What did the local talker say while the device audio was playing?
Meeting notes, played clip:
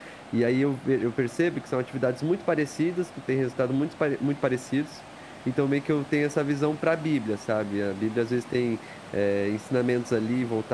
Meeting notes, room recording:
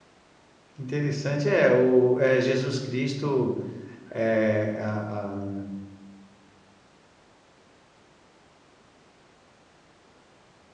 que interessante. É, o é, Jesus Cristo, é, a- a-

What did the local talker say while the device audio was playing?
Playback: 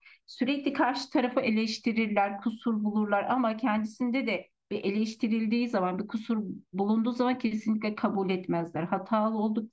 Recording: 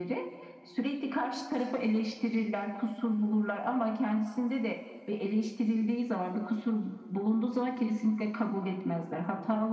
none

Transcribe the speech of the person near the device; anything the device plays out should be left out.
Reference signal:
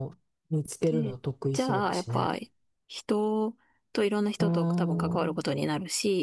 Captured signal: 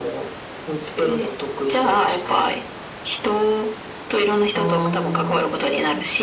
none

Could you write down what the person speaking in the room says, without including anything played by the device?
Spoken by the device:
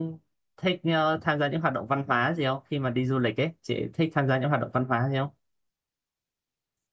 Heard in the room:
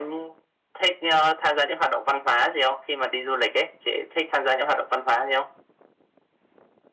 none

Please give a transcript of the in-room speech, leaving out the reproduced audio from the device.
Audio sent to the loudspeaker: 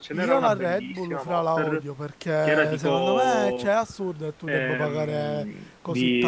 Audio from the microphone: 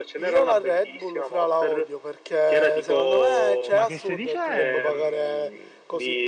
Ma che stai dicendo?

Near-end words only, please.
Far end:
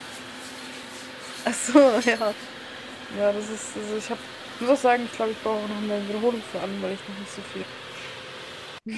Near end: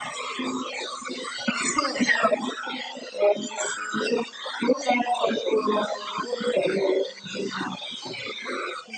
none

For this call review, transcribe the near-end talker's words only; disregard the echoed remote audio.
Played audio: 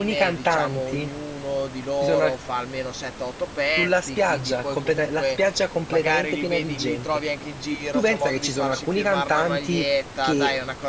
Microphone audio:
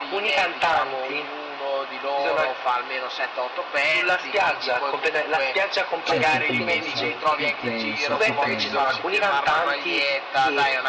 Cioè, tu pensa, tu pensa, tu pensa.

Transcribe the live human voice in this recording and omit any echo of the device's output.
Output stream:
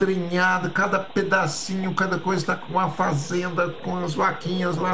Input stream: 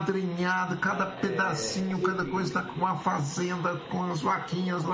né? É, enfim,

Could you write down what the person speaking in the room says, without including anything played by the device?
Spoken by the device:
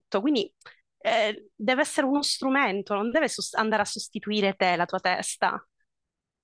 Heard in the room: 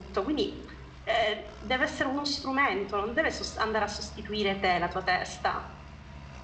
none

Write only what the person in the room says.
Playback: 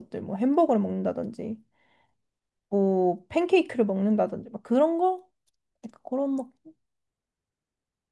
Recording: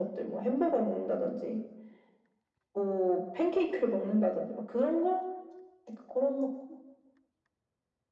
none

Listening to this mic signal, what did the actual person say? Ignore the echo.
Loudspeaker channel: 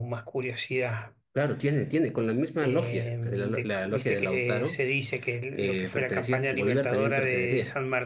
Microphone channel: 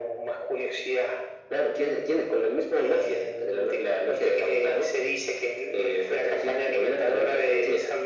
none

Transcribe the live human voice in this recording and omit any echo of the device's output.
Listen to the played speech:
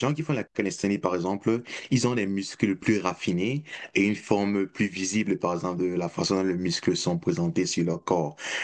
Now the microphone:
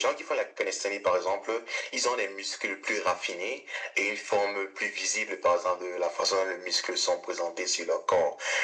none

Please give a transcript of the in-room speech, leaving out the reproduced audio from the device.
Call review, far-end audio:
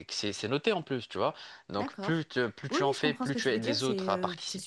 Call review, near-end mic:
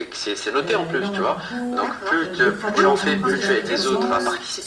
euh, énormément de cours, euh, des travaux à rendre déjà qui commencent,

